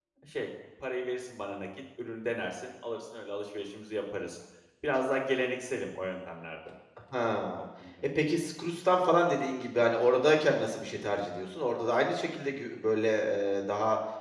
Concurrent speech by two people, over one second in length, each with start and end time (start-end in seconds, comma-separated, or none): none